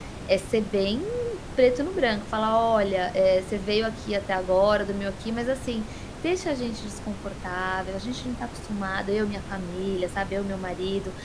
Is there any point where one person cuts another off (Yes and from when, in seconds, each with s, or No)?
No